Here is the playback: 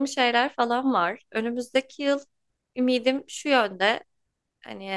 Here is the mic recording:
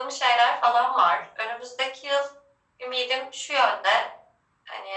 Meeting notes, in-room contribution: none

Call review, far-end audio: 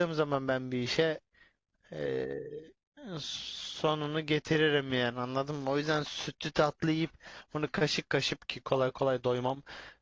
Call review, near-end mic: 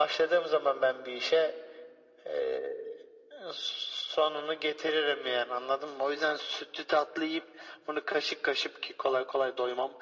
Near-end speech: none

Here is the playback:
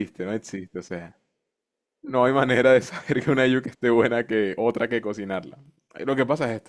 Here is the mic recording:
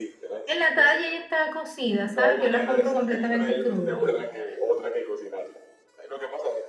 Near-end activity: present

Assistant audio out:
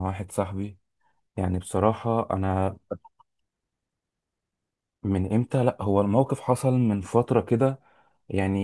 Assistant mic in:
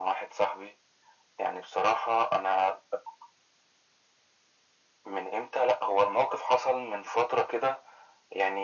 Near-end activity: none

